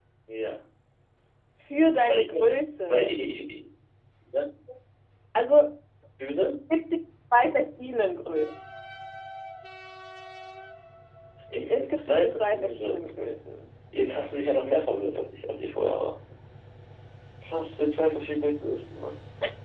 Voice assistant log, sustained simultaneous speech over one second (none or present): present